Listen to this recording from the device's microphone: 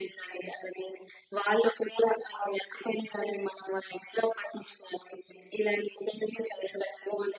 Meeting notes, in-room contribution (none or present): none